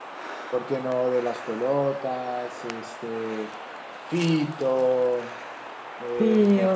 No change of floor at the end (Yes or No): No